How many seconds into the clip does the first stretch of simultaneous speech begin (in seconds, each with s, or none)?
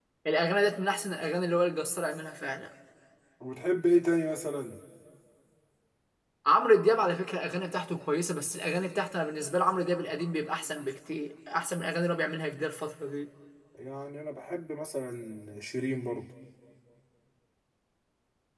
none